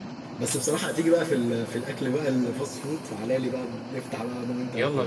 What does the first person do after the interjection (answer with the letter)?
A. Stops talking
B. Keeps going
A